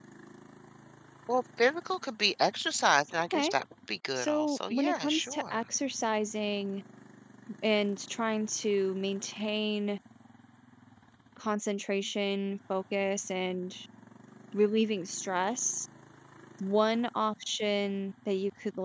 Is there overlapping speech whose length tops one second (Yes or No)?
Yes